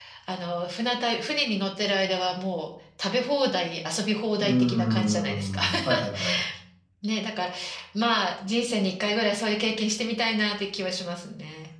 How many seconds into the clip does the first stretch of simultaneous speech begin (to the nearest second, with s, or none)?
4 s